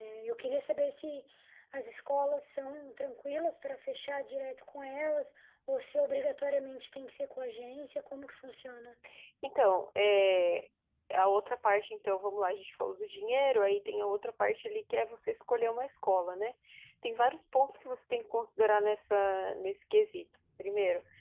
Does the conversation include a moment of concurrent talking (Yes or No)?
No